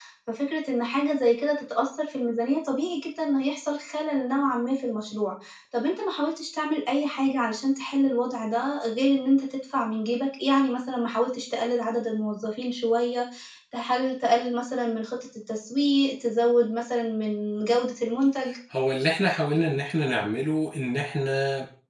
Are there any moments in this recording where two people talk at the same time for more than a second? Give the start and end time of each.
none

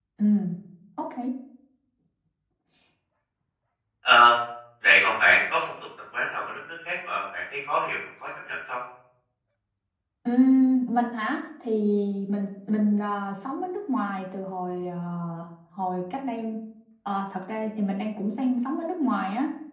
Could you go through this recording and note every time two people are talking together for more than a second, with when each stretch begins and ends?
none

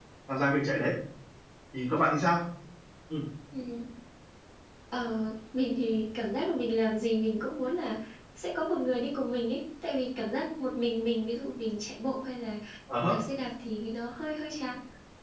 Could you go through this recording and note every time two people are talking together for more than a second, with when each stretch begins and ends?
none

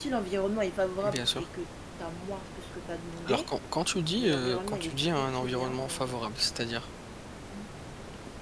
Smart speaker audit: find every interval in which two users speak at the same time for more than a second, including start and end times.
4.2-6.2

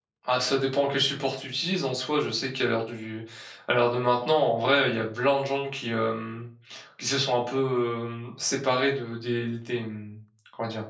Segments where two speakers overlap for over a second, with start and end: none

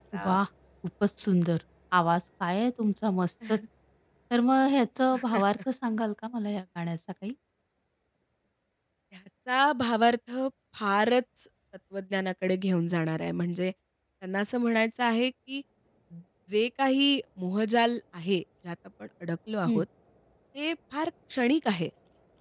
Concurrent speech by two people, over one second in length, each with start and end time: none

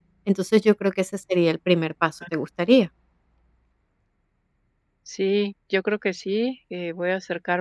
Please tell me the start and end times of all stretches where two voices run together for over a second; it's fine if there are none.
none

